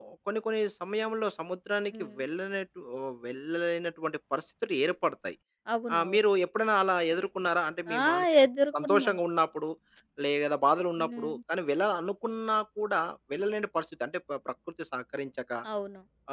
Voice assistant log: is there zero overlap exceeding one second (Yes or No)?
Yes